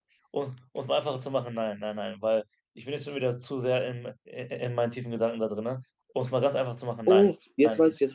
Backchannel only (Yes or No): No